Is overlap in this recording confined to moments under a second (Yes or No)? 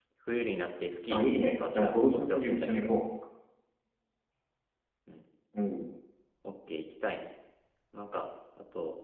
No